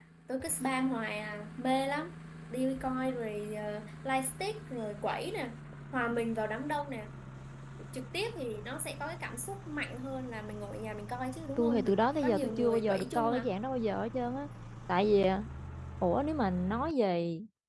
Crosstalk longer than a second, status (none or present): present